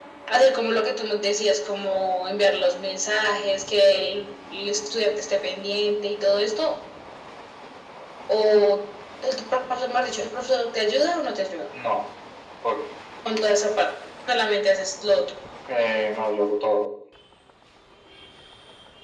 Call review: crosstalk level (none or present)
none